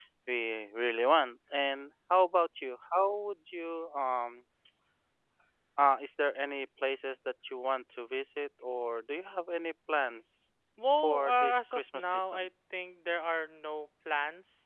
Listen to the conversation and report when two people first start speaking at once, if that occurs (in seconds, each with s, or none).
11.0 s